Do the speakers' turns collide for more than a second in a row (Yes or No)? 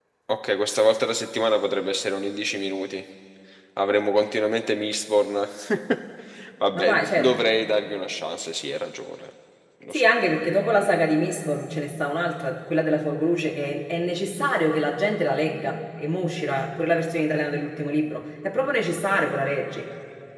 No